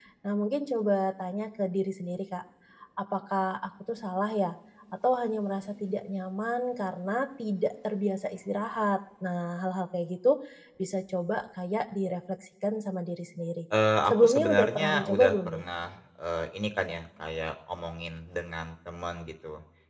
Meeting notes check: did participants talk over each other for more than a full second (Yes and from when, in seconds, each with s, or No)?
Yes, from 14.1 s